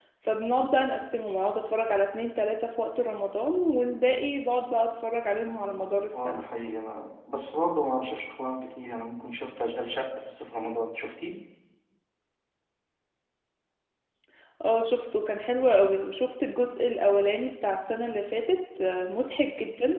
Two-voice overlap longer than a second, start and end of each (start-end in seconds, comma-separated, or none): none